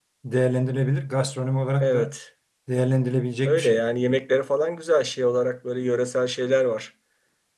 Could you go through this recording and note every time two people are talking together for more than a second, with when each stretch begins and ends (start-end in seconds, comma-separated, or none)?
none